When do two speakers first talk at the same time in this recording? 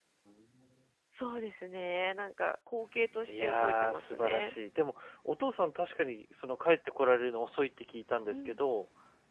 3.3 s

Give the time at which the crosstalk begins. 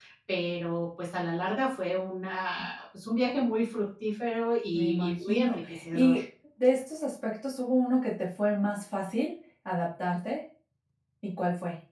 4.7 s

